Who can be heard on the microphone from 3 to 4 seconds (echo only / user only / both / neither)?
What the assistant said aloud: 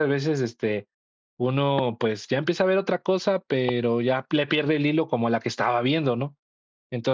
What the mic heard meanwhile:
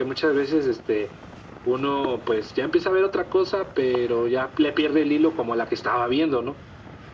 echo only